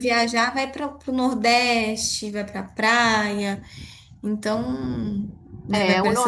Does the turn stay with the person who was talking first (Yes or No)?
No